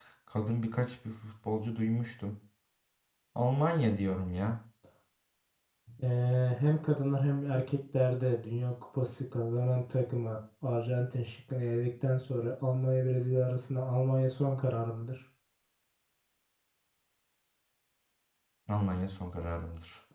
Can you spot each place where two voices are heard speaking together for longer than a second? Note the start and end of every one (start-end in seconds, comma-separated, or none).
none